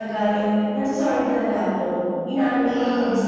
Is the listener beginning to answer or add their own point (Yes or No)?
No